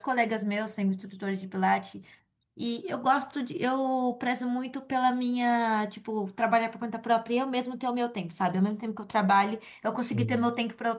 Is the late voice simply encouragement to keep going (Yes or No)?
Yes